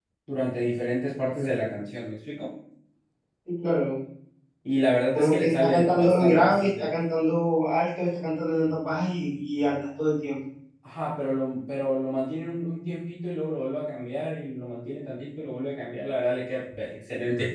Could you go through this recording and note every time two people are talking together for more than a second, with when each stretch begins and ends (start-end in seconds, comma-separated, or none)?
5.1-6.9